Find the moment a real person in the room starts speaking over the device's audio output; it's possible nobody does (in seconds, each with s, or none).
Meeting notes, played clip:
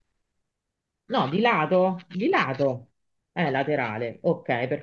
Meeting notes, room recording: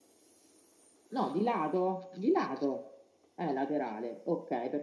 none